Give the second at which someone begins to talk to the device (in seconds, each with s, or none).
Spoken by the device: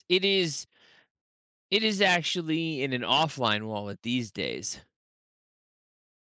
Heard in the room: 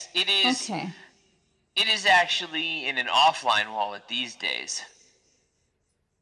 0.4 s